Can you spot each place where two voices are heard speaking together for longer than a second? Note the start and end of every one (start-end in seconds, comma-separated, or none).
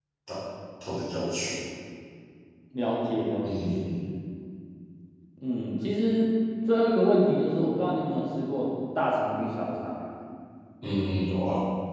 none